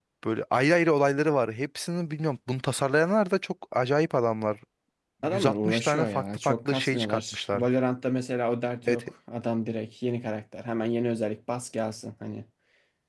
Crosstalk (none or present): present